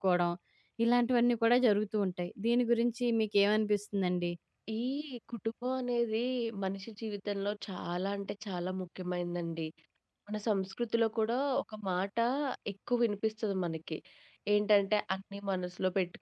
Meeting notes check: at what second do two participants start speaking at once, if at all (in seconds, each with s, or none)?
none